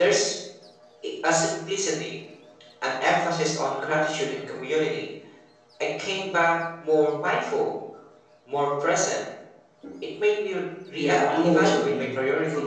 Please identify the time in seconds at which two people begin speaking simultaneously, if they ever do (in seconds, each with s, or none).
11.0 s